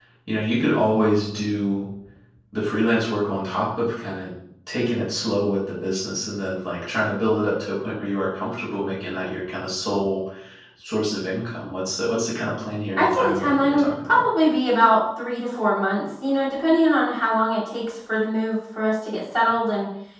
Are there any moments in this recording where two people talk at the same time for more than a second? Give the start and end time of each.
13.0-14.2

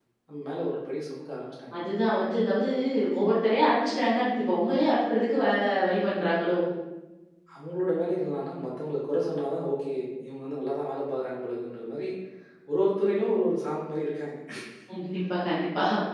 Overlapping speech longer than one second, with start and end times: none

